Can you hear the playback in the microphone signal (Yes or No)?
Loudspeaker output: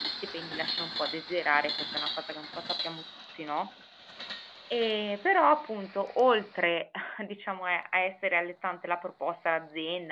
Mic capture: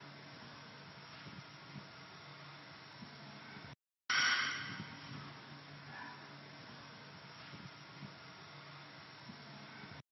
No